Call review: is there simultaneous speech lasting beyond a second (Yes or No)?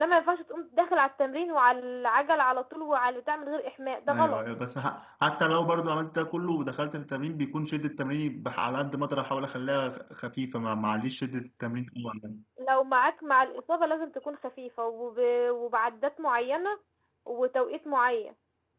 No